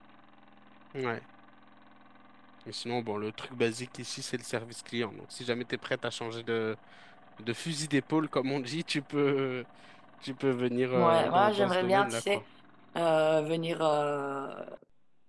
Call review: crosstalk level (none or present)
present